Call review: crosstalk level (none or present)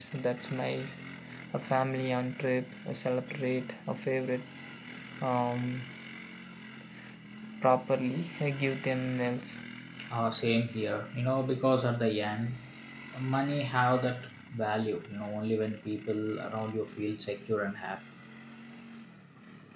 none